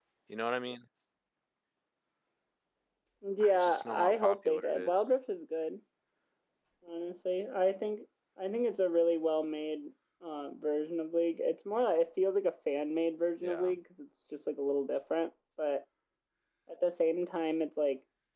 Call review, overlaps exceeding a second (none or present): present